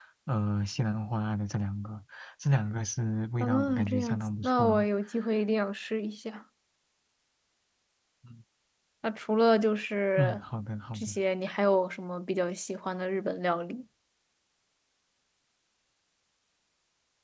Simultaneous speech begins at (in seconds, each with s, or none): 3.4 s